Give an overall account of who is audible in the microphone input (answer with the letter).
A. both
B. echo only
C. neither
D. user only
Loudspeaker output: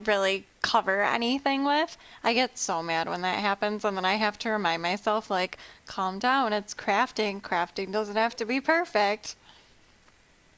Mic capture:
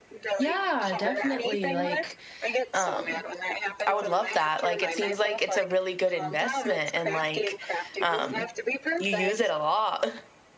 A